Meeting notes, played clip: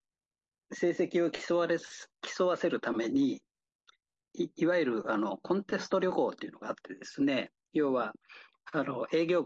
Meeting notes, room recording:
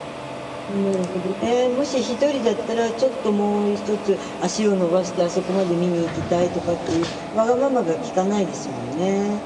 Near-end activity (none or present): present